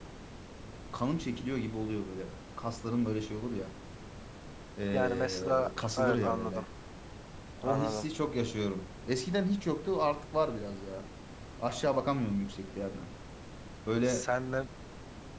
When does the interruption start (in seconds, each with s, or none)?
4.9 s